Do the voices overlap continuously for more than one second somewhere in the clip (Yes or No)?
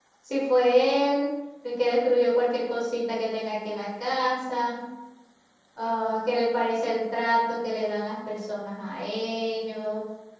No